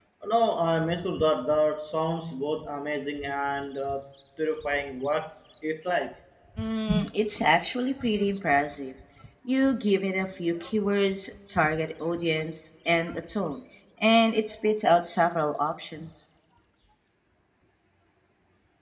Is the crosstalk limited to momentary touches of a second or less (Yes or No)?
Yes